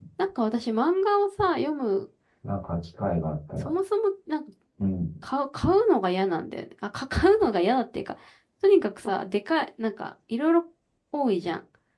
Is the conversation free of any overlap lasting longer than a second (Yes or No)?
Yes